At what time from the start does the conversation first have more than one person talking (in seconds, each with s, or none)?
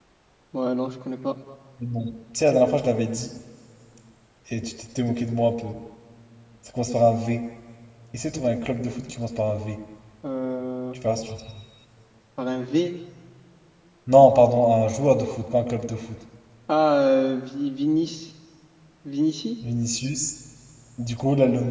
none